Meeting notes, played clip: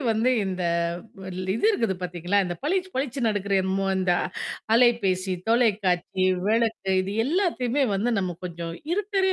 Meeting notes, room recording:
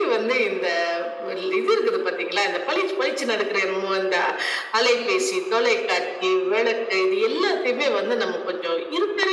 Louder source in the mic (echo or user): echo